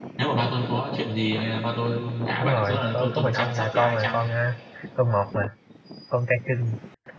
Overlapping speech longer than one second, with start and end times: 2.4-4.2

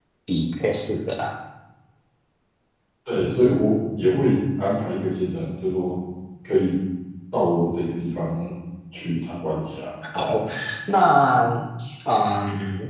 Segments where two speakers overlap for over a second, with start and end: none

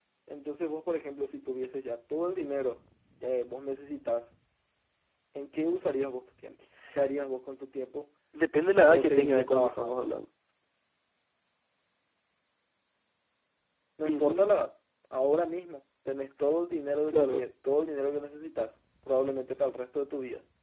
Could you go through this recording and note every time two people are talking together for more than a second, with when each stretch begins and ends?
8.9-10.1

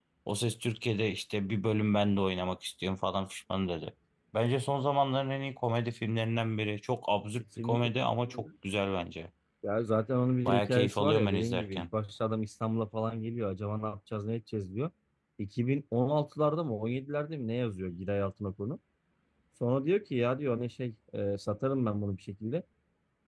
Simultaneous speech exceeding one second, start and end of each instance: 10.4-11.8

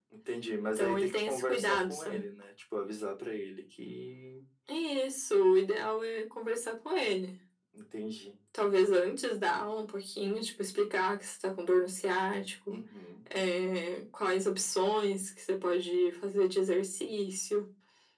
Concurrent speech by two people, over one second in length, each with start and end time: 0.8-2.3

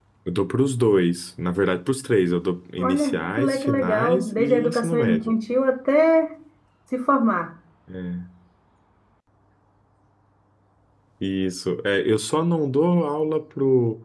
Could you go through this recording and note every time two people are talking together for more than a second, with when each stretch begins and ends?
2.8-5.3

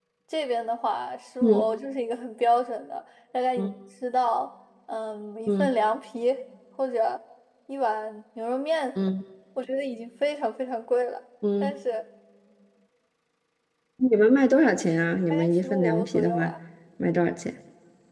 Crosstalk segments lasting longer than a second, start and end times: 15.3-16.5

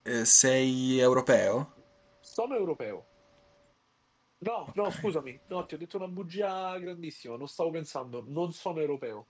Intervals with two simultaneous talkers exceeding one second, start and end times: none

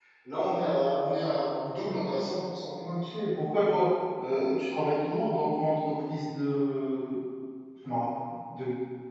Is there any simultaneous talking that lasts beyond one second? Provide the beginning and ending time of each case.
none

